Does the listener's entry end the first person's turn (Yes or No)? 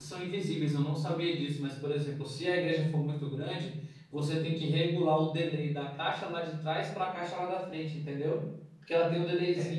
No